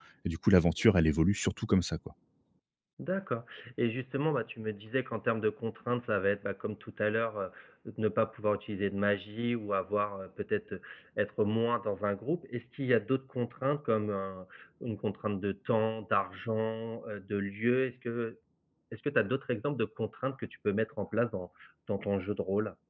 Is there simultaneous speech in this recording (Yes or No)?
No